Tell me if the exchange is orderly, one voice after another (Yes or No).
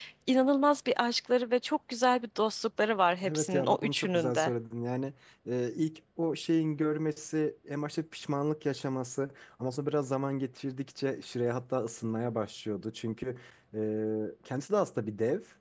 No